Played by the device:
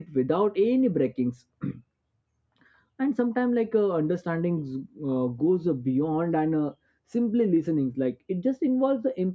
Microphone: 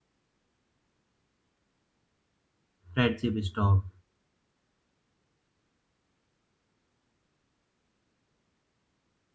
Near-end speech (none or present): present